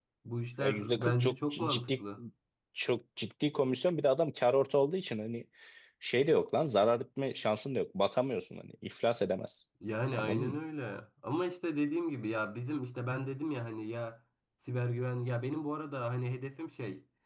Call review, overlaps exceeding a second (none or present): present